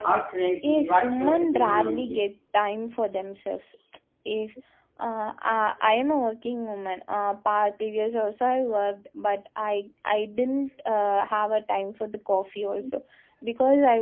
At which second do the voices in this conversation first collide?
1 s

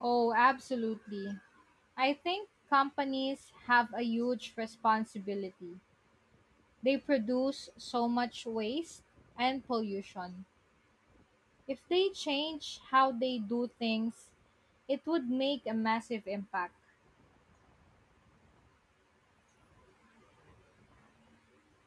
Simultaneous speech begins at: none

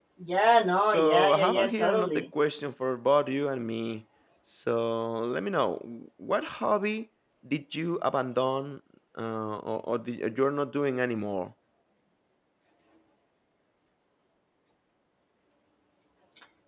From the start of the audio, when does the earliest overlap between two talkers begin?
1 s

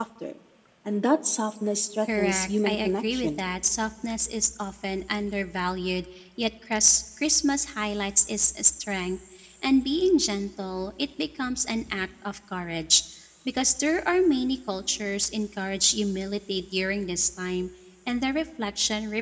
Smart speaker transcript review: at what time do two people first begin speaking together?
2 s

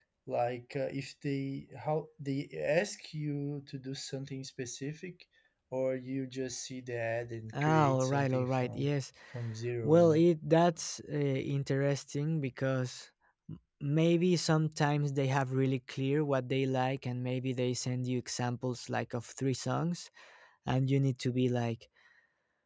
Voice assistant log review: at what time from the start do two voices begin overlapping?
8 s

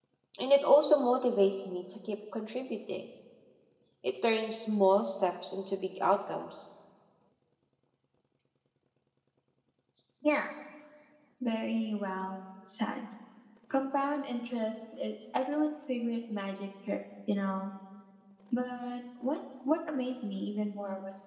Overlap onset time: none

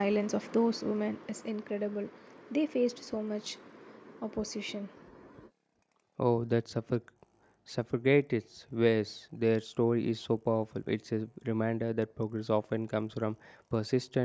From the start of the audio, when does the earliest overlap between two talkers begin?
none

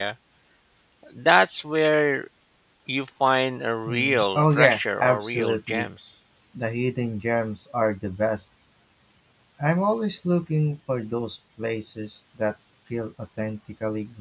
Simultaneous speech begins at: 4 s

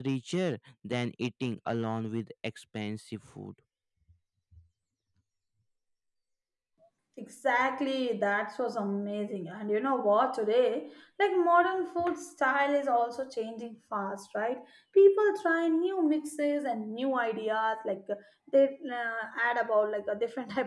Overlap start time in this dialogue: none

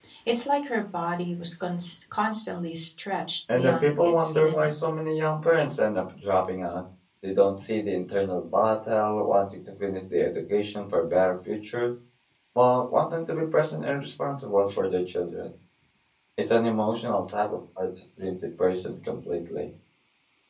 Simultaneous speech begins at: 3 s

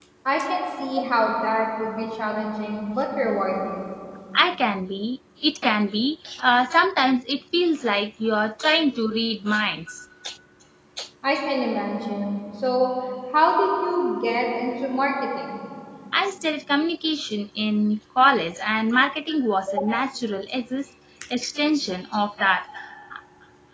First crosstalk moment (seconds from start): none

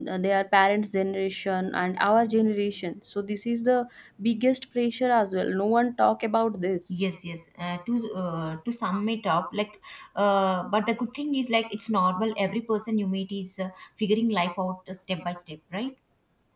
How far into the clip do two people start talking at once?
none

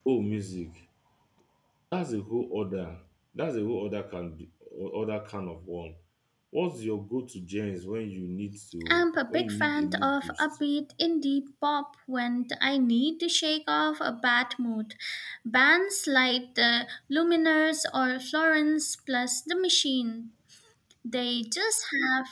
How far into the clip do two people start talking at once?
9 s

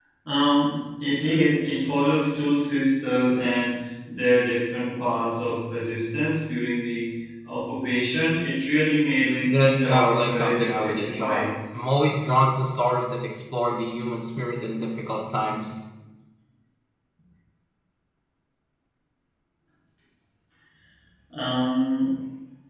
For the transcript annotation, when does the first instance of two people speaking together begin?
9 s

